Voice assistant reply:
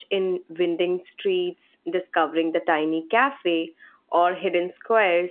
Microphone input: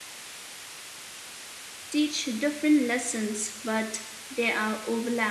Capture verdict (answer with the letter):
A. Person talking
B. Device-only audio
A